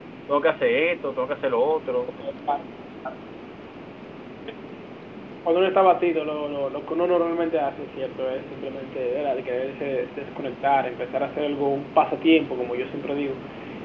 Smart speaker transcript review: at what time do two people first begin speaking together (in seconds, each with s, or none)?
none